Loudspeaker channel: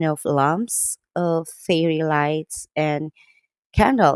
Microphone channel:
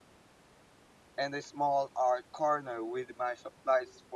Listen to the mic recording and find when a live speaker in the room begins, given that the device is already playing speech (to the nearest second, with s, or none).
1 s